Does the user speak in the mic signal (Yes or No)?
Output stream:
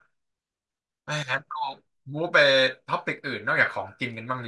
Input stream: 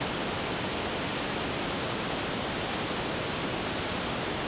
No